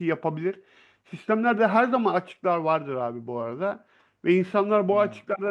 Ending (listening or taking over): listening